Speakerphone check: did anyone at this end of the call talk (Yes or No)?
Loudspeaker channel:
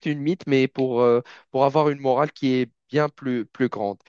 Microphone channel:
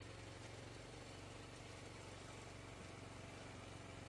No